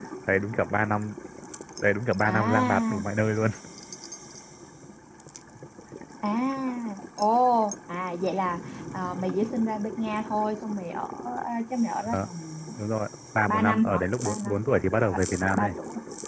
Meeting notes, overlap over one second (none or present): present